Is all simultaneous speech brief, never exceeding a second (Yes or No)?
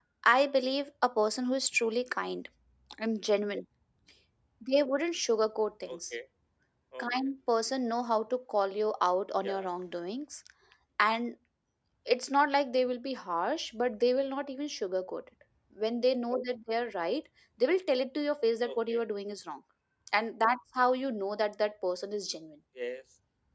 Yes